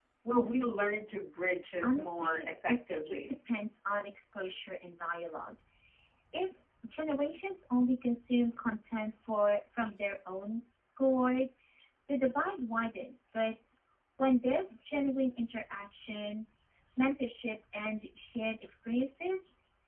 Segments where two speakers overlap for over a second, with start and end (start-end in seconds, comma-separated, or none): 1.8-3.1